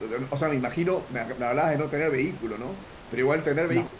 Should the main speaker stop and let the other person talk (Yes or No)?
No